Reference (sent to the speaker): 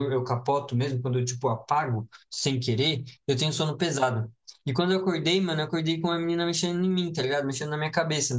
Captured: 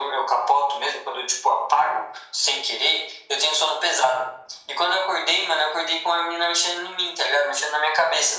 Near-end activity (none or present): none